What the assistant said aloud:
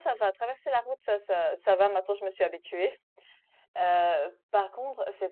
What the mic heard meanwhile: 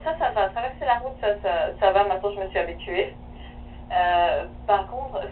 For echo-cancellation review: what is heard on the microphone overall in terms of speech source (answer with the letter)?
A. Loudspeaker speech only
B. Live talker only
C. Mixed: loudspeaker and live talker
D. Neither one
A